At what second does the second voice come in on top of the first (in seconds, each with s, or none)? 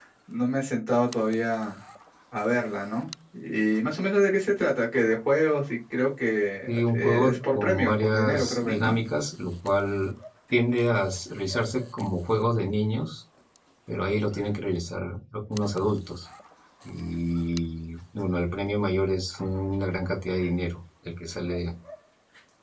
6.7 s